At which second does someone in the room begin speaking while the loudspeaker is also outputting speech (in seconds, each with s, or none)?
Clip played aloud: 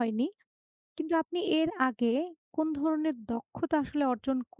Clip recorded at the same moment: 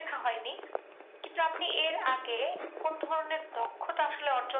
none